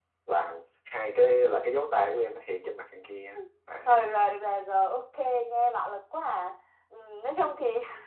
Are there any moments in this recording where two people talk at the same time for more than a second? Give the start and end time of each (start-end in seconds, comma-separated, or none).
none